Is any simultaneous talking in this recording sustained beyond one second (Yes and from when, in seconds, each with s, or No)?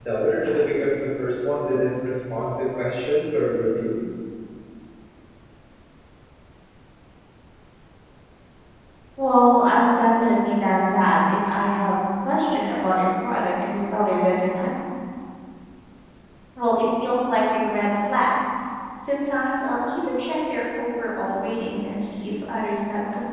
No